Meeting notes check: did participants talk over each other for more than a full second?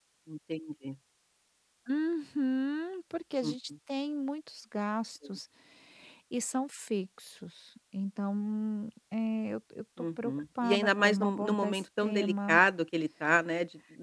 Yes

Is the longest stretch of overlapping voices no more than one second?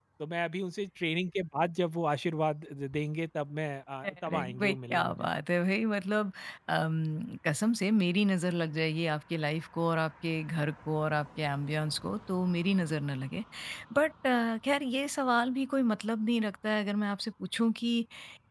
No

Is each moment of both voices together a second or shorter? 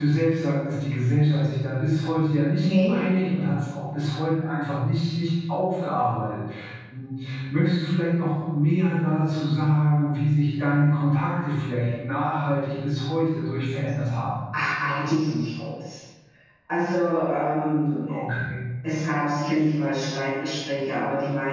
Yes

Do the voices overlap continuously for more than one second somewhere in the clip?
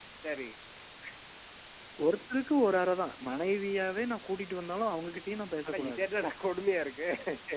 No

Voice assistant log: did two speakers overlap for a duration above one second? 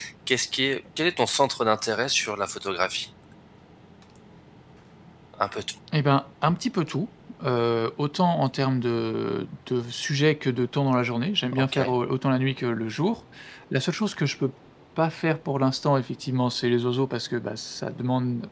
No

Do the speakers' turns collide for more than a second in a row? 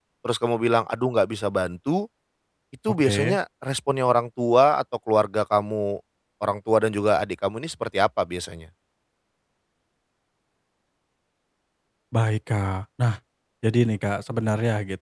No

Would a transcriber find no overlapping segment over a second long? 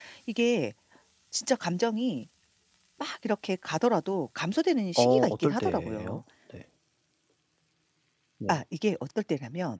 No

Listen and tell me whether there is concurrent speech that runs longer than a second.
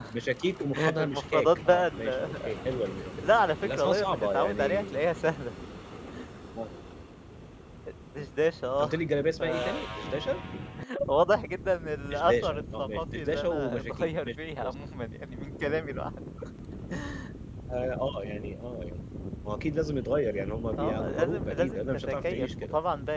Yes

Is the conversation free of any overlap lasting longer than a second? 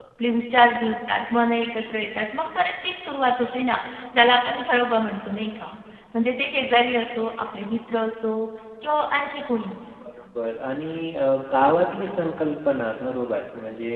Yes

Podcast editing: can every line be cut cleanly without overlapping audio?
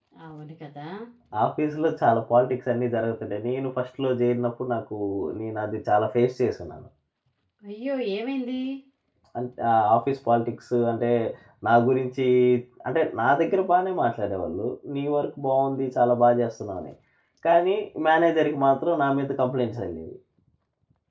Yes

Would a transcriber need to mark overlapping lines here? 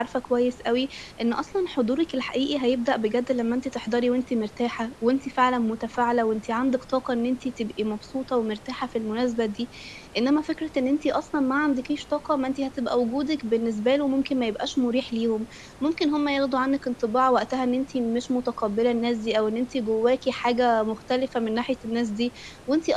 No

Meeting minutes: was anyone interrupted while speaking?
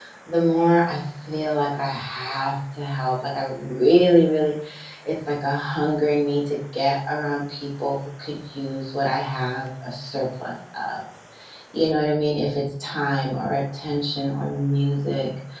No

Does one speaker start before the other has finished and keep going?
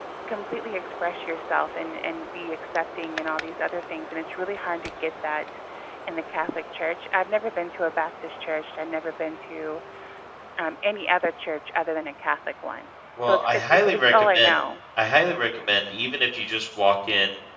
Yes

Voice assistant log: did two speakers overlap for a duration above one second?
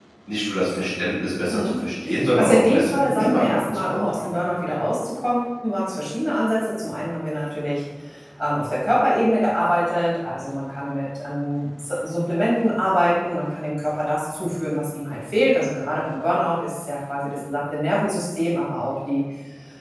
Yes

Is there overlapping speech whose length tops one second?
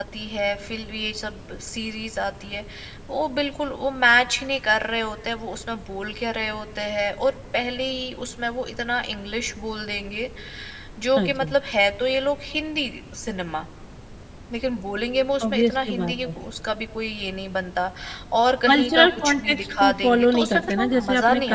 Yes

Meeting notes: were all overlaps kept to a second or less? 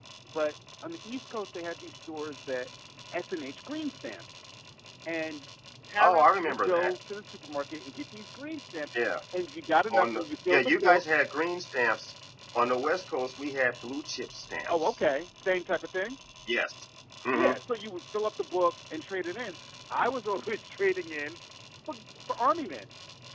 No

